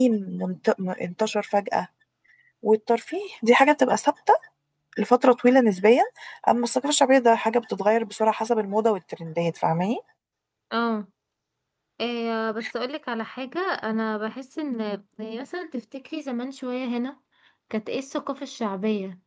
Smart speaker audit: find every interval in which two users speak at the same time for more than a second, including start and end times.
none

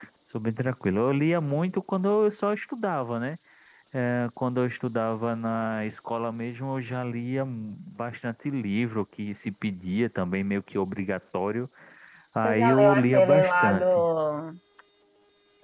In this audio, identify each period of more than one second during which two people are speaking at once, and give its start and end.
12.4-14.0

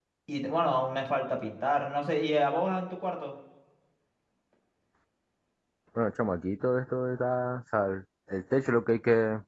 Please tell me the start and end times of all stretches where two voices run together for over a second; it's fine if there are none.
none

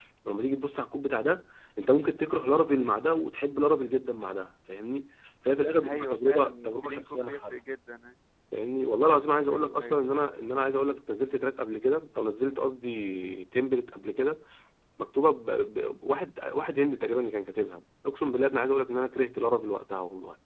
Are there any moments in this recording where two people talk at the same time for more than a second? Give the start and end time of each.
5.8-7.5

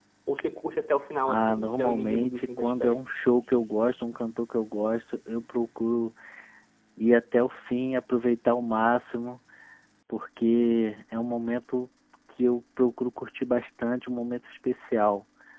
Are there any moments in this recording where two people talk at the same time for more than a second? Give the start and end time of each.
1.3-3.0

